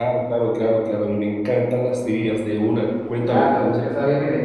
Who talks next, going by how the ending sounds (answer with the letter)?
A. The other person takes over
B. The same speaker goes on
A